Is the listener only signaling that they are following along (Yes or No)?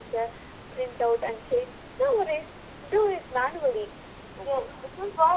No